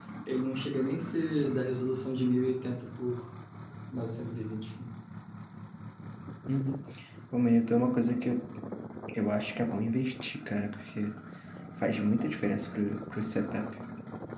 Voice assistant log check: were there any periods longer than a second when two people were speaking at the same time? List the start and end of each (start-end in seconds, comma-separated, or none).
none